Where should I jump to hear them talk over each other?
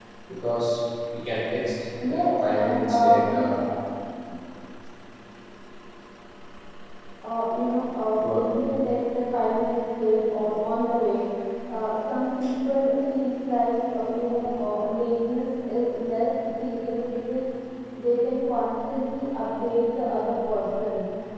2.0 s

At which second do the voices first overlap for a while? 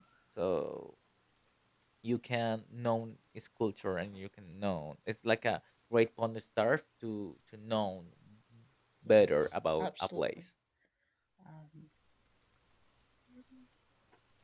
9.1 s

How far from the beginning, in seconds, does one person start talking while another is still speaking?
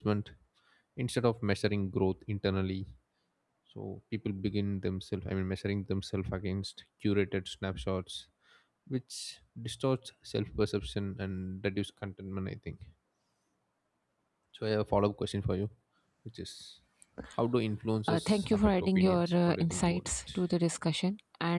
18.1 s

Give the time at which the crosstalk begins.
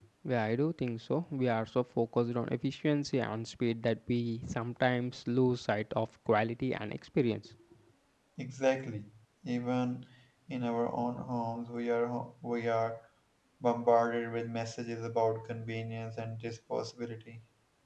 none

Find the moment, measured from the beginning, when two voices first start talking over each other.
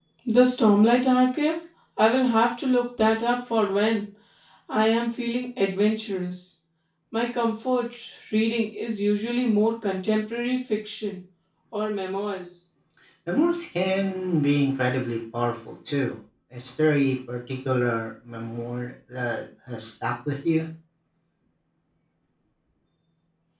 none

